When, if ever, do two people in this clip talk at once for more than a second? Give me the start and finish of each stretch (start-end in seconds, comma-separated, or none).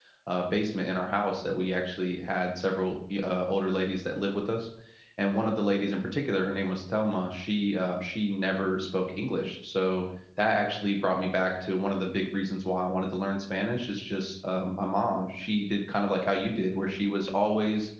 none